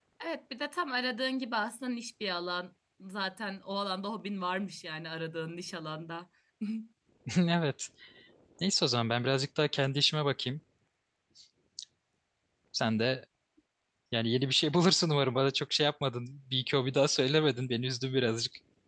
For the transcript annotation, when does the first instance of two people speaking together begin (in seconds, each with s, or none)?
none